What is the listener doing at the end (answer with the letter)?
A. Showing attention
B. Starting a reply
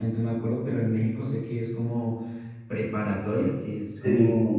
A